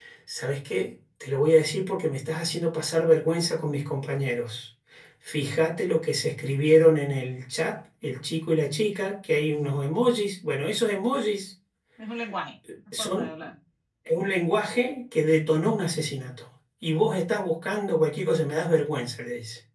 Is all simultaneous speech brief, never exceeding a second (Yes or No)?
Yes